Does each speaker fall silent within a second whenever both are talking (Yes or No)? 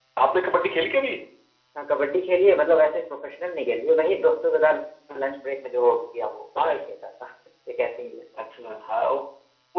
Yes